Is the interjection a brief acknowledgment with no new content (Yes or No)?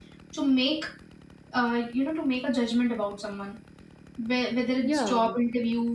Yes